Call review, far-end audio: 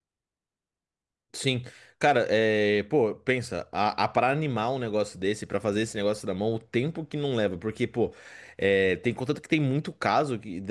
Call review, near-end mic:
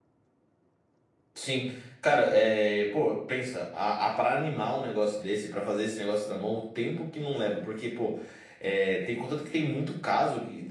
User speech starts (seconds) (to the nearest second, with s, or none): none